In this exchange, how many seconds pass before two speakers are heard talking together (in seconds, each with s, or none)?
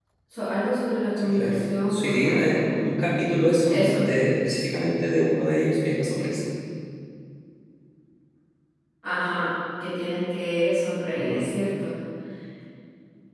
1.2 s